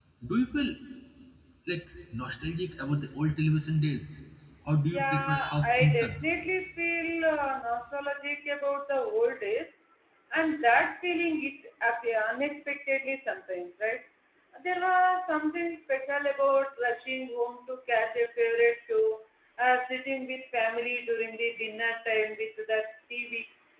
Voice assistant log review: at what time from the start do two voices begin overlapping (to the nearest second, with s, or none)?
5 s